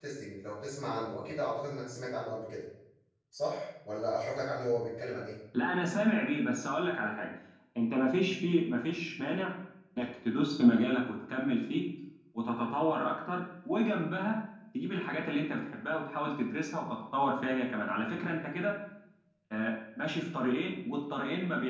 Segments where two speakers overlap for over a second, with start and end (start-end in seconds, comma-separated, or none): none